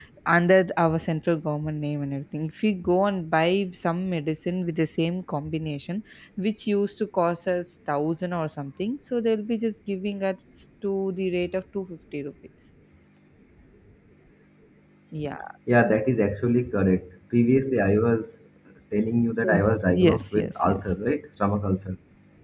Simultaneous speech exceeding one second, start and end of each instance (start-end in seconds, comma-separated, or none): 19.4-21.0